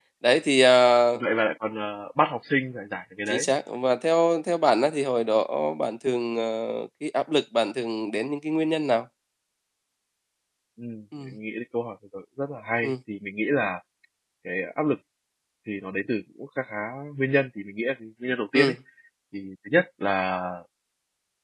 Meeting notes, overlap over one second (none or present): none